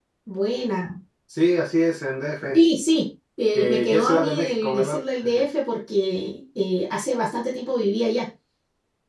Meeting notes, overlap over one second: present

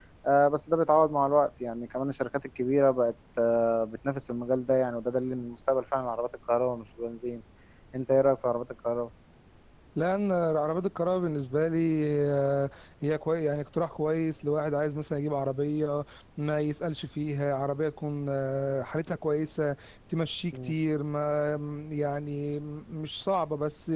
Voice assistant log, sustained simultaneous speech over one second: none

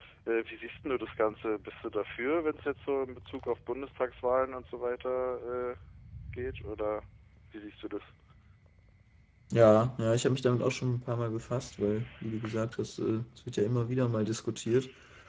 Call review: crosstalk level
none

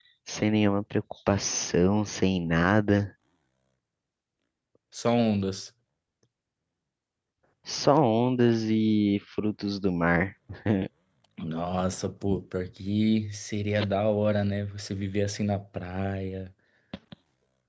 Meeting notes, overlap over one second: none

